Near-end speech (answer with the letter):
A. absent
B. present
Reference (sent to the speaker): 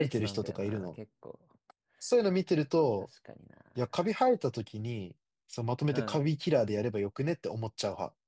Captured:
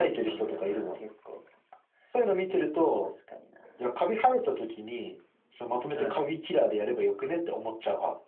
A